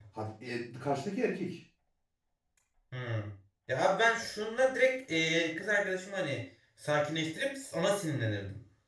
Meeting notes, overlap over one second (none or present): none